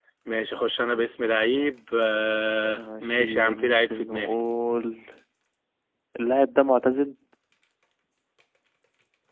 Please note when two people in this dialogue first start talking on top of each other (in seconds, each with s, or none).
2.8 s